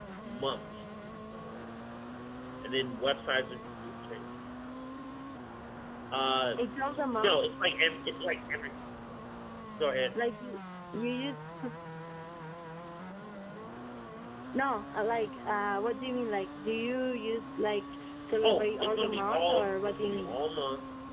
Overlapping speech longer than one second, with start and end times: 18.4-20.4

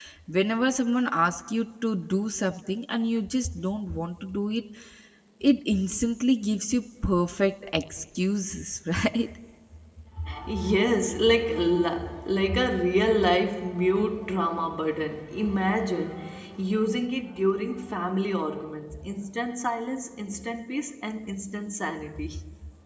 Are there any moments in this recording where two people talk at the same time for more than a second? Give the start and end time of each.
none

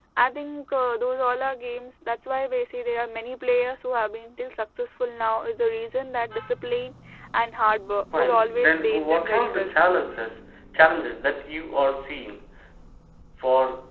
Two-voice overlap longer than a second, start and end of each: 8.2-9.7

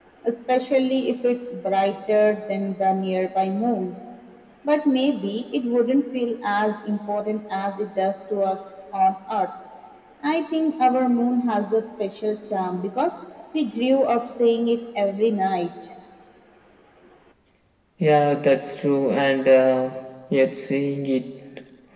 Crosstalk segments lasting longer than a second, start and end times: none

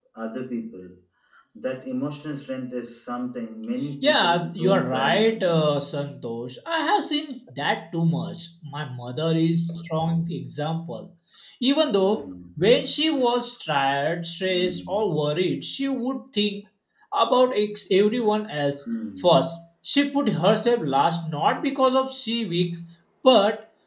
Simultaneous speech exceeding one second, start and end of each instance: 4.0-5.7

